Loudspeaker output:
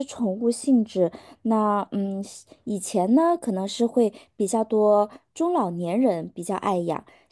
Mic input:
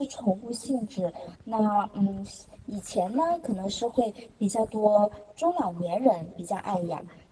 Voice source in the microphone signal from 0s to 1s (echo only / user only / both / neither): echo only